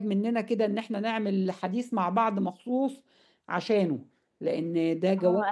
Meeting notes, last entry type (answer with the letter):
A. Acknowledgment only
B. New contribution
B